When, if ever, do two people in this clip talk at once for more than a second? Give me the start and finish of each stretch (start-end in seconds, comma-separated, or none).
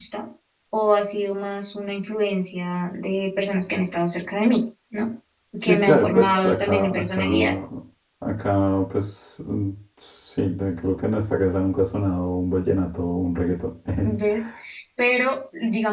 5.6-7.5